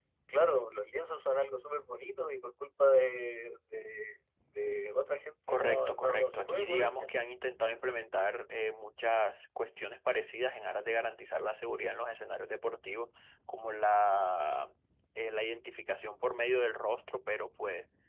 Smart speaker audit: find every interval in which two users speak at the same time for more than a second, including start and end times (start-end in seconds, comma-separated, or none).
5.5-7.1